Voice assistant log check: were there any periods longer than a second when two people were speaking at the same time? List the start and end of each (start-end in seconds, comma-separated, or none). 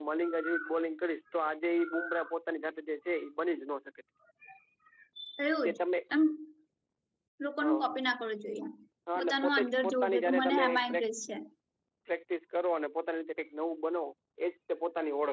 9.2-11.0